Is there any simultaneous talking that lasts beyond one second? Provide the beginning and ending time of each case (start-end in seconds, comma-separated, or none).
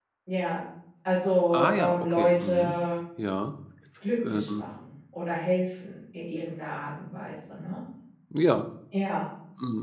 1.5-2.8